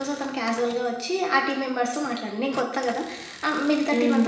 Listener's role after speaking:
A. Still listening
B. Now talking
A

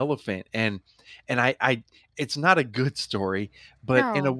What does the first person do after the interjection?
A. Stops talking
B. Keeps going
B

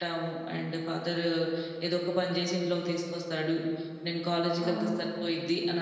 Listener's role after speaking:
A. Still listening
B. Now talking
A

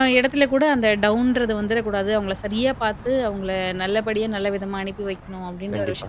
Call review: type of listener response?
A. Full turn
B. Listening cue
A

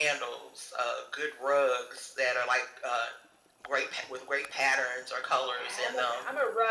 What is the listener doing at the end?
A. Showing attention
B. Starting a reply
B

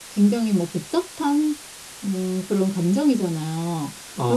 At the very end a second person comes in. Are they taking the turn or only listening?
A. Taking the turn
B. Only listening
B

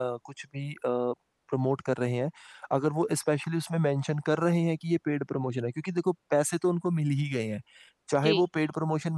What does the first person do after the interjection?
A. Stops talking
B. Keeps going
B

